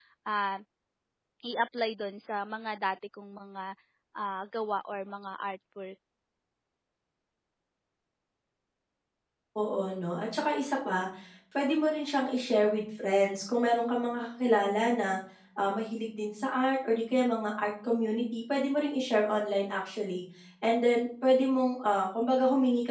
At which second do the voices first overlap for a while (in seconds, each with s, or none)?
none